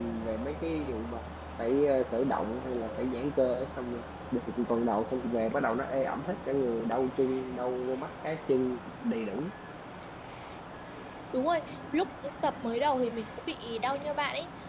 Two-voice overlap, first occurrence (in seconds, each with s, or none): none